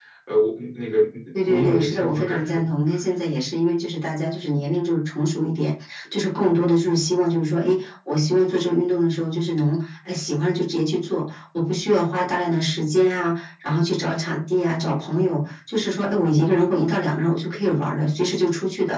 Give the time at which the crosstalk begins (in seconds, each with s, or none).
1.4 s